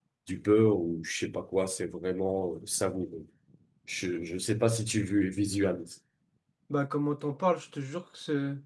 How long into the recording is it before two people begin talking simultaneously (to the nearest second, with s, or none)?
none